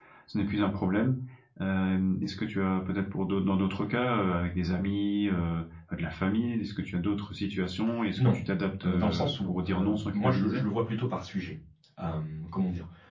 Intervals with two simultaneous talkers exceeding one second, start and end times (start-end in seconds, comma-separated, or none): 8.8-10.6